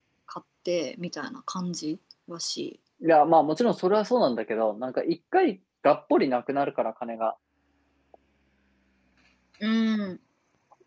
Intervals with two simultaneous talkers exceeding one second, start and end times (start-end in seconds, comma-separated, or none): none